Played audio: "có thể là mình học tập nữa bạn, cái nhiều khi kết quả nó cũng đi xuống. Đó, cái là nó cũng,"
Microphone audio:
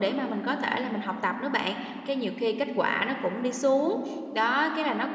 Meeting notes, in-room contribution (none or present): none